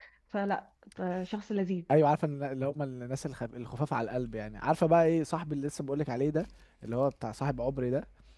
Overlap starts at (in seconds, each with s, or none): none